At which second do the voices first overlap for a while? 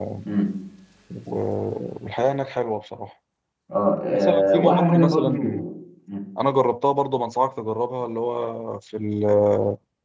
4 s

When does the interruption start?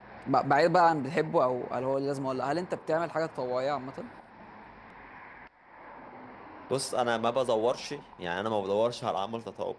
none

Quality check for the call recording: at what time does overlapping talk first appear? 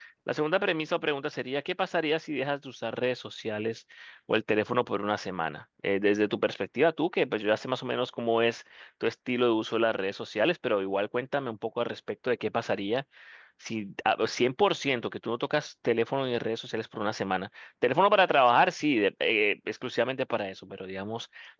none

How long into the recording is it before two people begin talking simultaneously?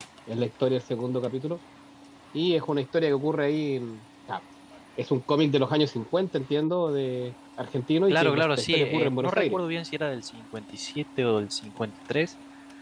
8 s

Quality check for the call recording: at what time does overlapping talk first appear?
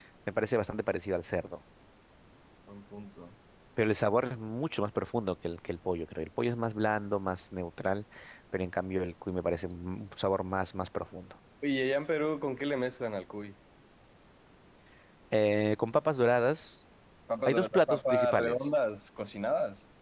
17 s

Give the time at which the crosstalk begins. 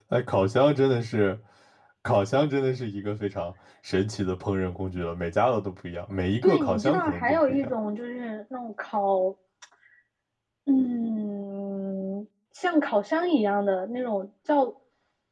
6 s

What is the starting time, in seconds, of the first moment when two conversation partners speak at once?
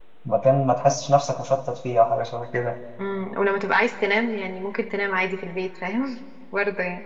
none

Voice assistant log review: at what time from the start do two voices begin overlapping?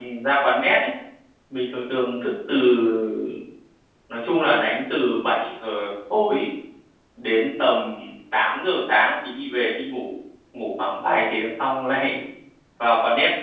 none

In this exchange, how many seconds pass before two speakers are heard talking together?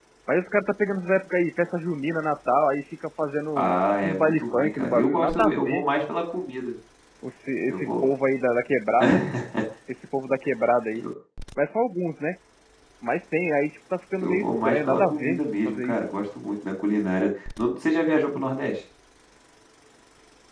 4 s

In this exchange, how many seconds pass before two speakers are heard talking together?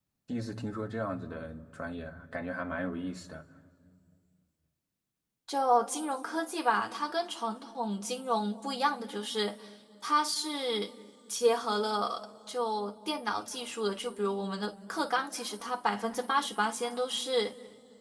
none

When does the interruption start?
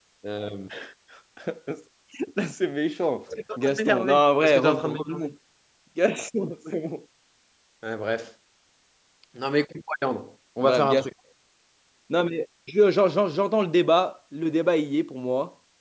4 s

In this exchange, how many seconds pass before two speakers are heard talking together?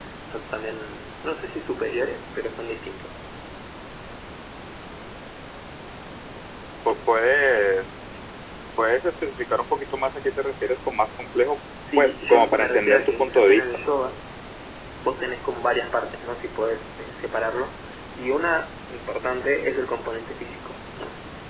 12 s

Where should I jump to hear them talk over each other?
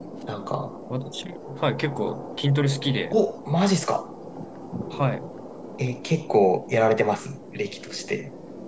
none

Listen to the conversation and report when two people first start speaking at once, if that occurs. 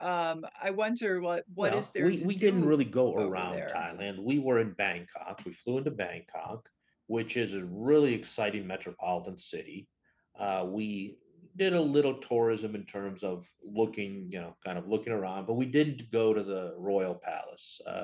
2 s

